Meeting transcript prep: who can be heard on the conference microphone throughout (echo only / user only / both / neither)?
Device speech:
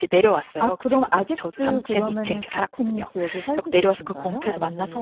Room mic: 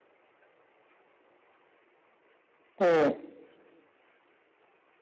user only